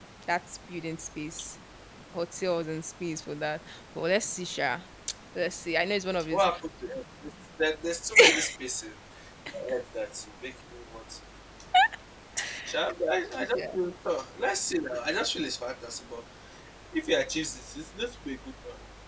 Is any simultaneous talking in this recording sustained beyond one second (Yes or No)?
No